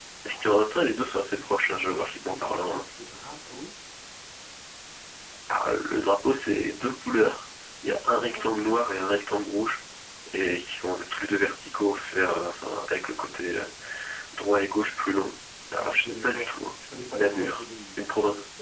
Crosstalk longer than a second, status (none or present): present